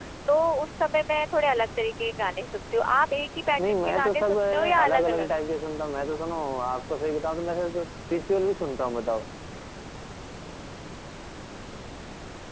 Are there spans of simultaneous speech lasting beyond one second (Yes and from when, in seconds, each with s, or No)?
Yes, from 3.6 s